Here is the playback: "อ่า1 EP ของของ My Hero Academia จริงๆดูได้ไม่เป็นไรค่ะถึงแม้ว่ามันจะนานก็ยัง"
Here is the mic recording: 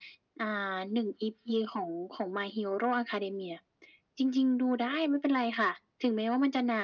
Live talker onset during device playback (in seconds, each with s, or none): none